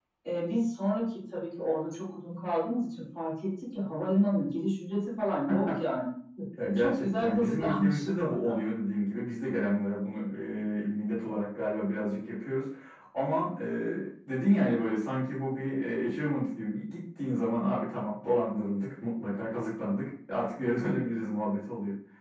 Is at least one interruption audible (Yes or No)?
Yes